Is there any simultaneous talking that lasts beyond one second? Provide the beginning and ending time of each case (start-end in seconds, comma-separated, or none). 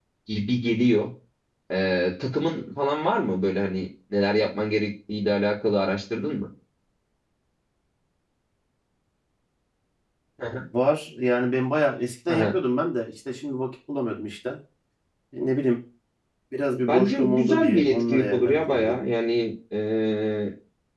16.9-19.0